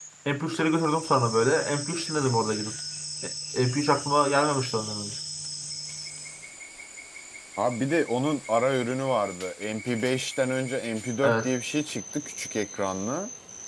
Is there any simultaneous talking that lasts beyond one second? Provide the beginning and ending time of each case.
none

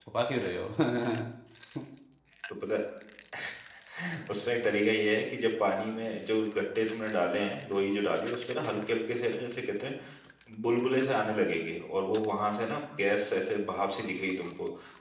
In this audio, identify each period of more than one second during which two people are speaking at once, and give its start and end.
none

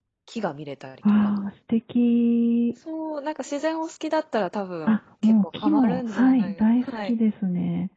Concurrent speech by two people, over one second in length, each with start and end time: 4.8-7.1

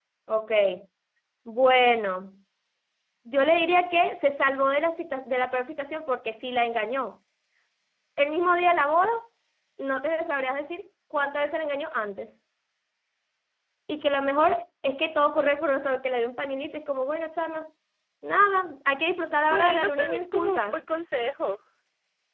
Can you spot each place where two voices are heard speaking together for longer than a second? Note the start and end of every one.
19.5-20.8

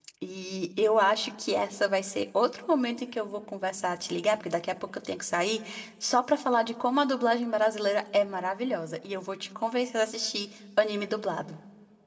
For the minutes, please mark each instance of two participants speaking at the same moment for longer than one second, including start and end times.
none

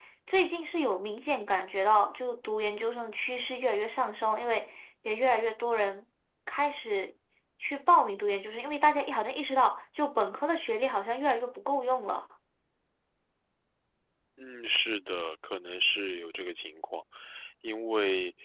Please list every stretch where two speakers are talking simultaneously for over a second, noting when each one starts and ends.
none

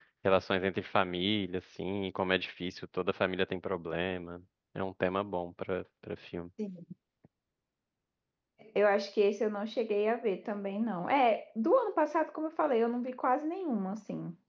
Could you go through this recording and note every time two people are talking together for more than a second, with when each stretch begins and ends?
none

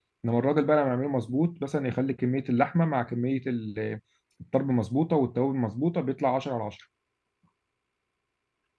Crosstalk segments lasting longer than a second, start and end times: none

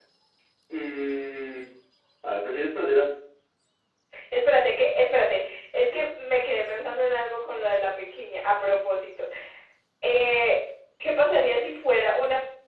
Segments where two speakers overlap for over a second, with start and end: none

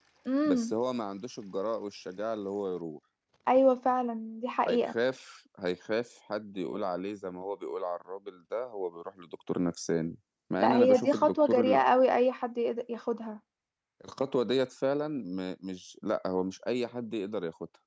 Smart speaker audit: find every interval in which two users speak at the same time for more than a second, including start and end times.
10.6-11.8

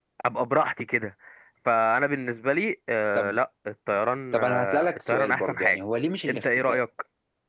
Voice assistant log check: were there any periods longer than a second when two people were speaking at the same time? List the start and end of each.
4.3-5.8

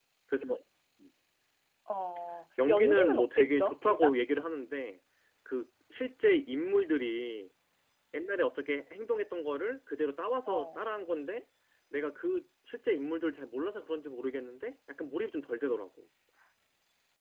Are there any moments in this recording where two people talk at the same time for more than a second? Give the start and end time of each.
2.7-4.1

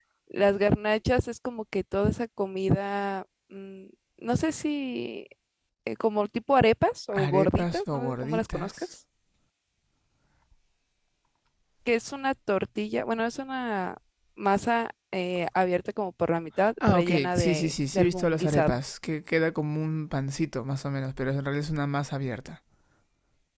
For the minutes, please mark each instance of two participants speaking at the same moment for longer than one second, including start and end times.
7.2-8.7, 16.9-18.8

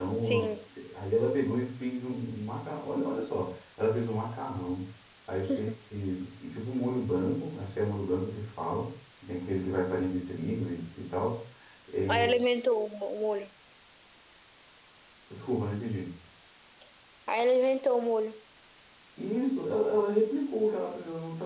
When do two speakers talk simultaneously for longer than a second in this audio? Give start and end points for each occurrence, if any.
none

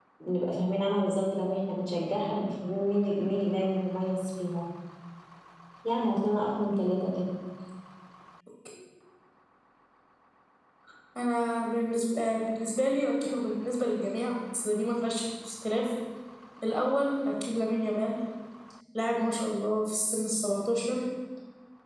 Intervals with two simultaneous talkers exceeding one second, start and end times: none

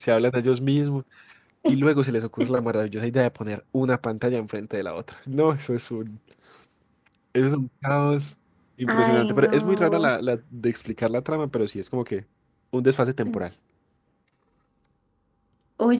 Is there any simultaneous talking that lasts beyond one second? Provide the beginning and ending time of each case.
8.9-10.1

